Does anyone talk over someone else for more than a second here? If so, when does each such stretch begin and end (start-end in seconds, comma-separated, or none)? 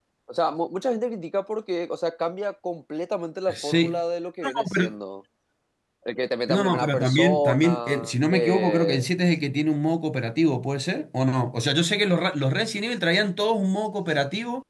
6.5-9.1